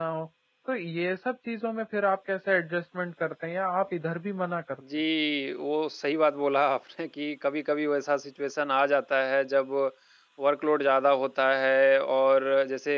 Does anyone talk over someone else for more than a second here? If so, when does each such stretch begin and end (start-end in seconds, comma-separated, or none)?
none